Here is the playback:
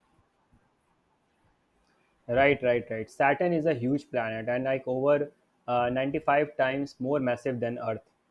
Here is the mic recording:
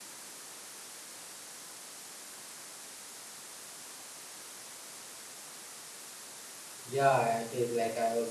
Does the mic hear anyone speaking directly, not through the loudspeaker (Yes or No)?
Yes